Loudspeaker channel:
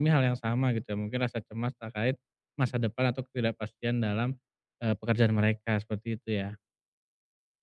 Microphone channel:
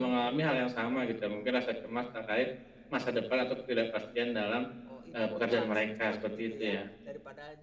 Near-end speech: present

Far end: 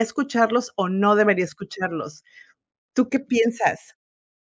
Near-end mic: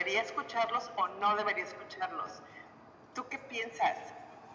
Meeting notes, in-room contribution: none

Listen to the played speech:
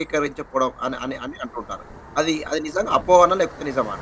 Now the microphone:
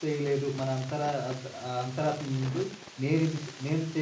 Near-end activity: present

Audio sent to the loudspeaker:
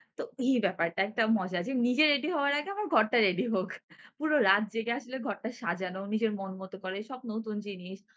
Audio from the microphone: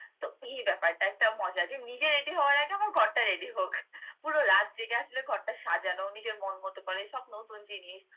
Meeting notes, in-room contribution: none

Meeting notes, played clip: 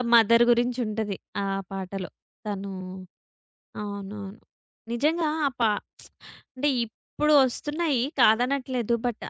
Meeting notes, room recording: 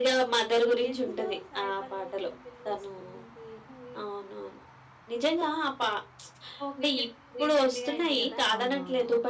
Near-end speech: present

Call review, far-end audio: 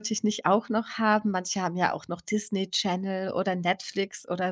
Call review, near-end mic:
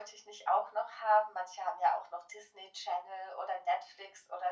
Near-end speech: none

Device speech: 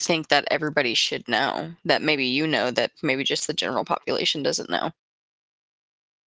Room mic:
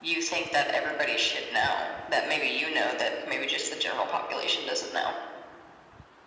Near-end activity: none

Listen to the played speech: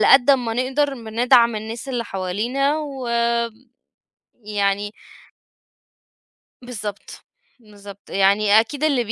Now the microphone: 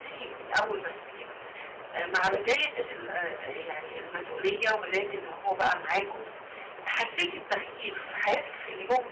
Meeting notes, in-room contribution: present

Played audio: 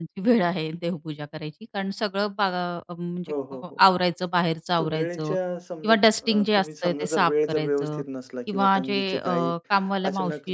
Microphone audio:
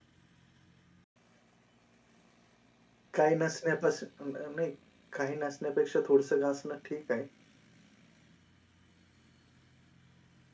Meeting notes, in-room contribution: present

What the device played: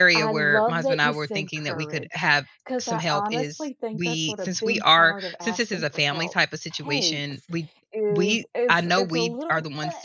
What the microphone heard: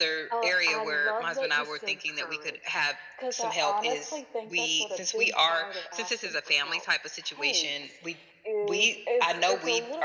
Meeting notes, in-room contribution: none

